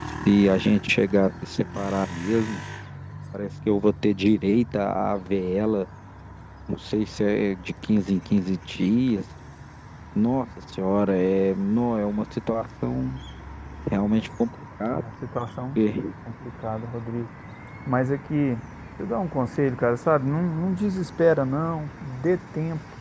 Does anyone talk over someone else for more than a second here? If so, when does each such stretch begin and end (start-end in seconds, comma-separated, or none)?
none